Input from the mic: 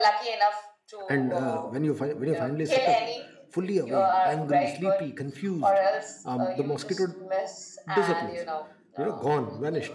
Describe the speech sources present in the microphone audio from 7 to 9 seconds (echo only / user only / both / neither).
both